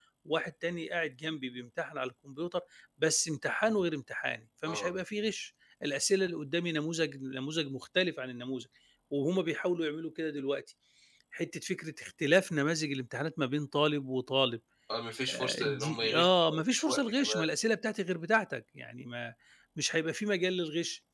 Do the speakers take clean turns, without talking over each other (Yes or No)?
No